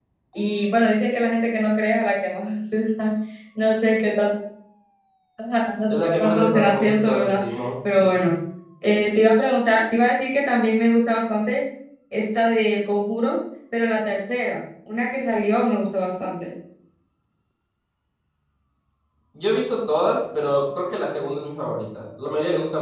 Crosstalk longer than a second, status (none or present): present